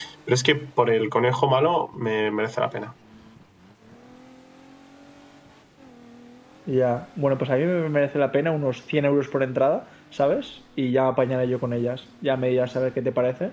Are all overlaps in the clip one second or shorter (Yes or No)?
Yes